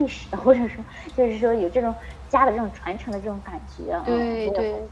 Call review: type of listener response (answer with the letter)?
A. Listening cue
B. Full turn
B